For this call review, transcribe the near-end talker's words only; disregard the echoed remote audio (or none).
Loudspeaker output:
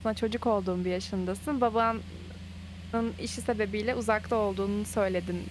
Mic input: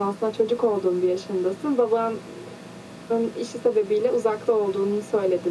none